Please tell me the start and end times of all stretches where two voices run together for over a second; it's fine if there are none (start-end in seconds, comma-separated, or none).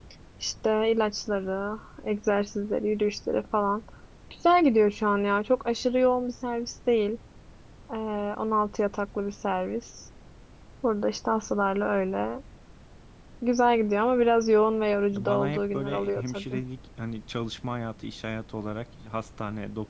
15.1-16.6